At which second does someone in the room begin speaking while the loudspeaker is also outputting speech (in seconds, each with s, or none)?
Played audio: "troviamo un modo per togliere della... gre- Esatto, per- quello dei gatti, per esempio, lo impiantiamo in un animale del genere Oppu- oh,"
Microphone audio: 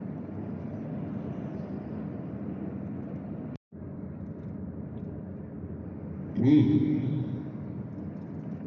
6.4 s